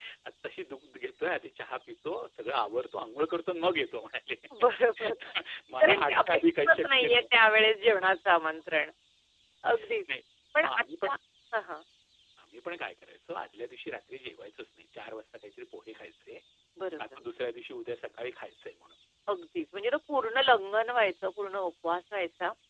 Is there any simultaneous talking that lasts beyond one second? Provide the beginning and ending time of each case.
5.8-7.2

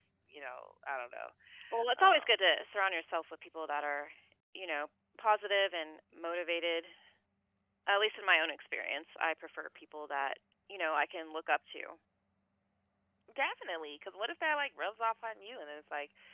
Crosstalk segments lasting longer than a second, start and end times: none

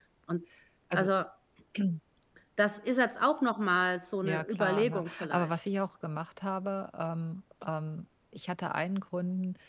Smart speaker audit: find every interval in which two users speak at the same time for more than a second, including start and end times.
4.2-5.6

